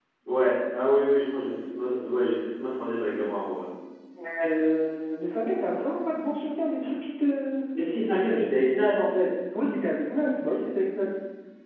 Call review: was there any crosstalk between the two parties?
No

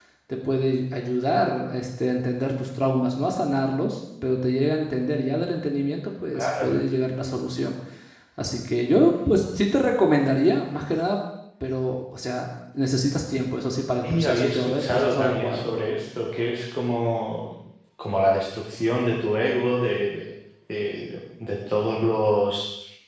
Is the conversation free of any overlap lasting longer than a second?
No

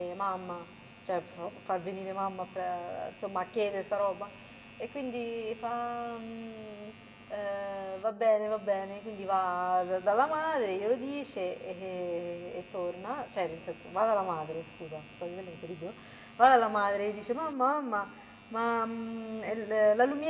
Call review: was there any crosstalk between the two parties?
No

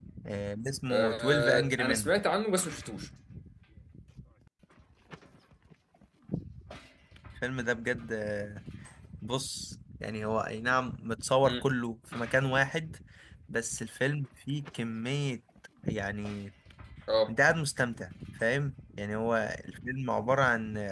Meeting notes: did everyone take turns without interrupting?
No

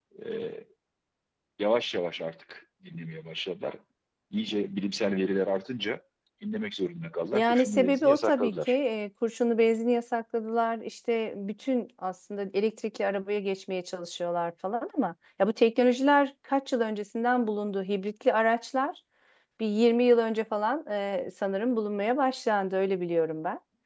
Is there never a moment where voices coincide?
No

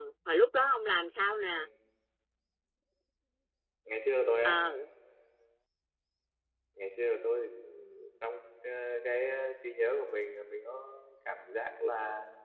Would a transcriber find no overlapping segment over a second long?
Yes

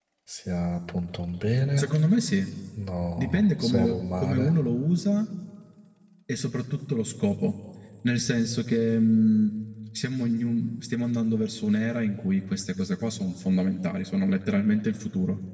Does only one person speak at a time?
No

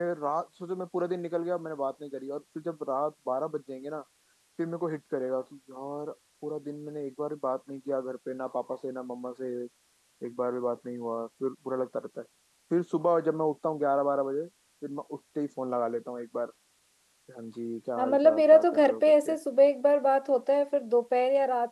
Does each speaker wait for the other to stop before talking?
No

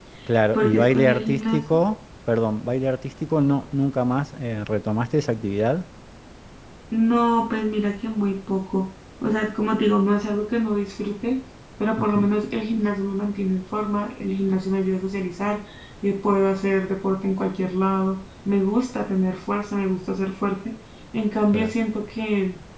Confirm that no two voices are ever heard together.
No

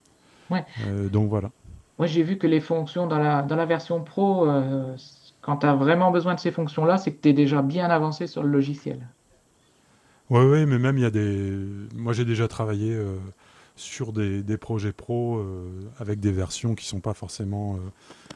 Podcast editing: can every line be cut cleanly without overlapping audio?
Yes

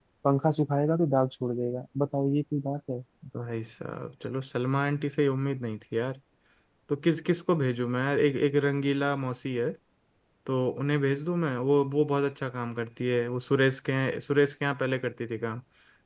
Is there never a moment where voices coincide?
Yes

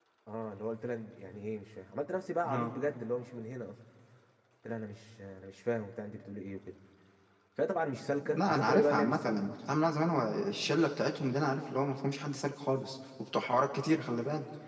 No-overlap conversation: No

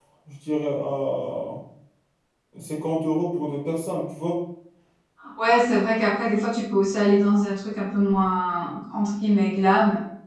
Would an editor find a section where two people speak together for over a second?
No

